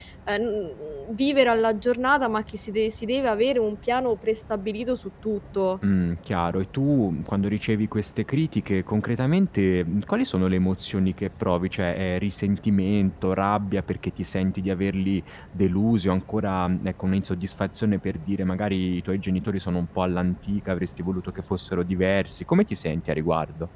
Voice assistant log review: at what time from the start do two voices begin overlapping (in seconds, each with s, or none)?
none